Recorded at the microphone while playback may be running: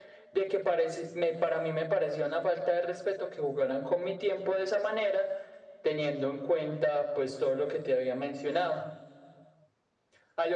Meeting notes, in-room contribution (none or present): none